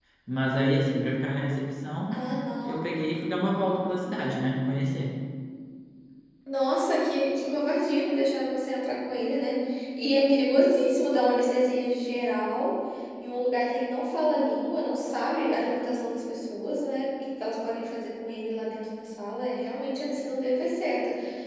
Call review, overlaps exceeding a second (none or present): none